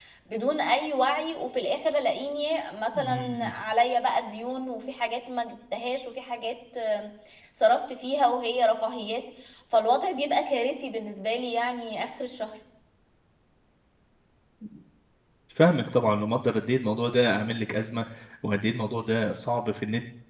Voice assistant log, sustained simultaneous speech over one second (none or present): none